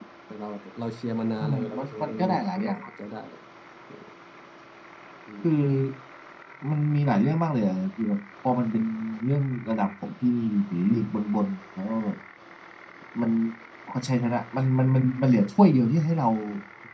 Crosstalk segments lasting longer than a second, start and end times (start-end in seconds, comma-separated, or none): 1.4-2.8